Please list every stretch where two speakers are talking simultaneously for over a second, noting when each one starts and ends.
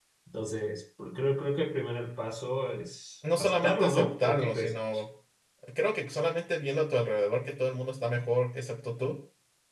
3.4-4.7

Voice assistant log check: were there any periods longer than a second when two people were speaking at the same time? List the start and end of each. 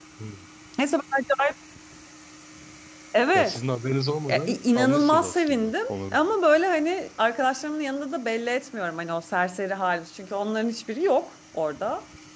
4.3-6.3

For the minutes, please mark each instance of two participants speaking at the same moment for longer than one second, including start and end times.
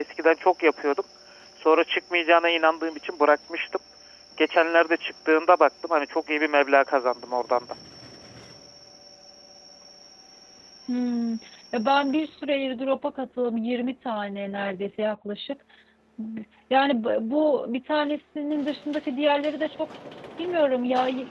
none

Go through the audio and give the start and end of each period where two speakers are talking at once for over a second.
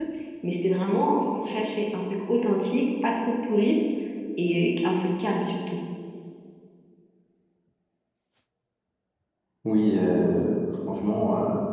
none

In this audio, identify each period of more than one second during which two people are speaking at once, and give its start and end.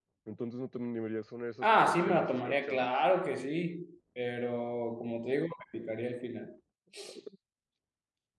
1.6-2.9

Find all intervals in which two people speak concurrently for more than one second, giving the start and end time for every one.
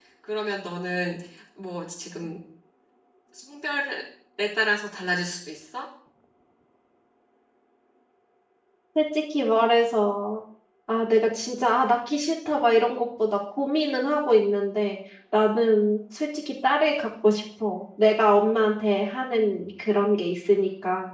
none

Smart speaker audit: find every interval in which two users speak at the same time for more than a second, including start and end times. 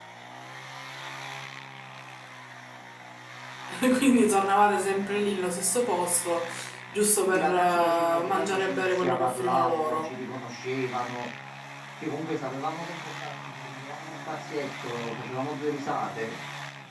7.2-10.2

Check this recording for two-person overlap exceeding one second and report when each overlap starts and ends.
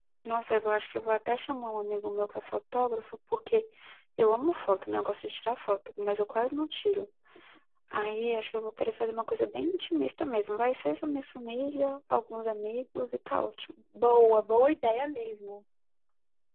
none

